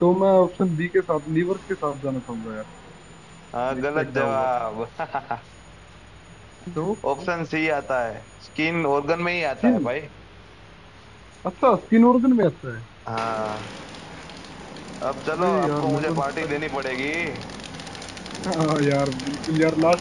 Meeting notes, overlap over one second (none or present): present